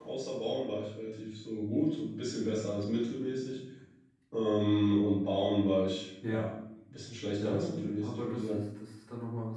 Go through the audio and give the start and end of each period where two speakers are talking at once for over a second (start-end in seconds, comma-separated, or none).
7.4-8.6